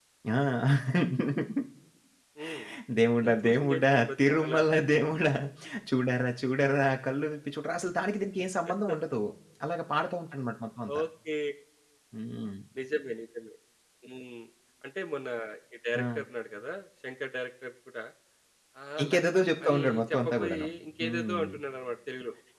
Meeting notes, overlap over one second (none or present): present